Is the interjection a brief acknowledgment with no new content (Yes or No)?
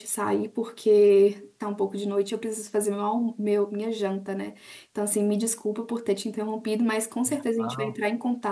Yes